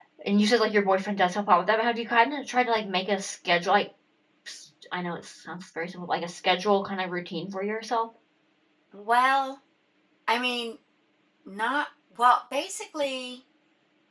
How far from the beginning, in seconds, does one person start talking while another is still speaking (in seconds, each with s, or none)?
none